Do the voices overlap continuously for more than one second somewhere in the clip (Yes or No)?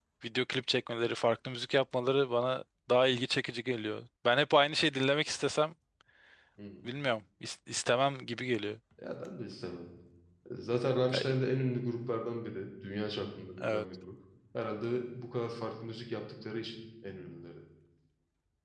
No